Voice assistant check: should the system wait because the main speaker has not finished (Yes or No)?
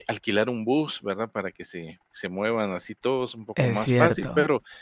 Yes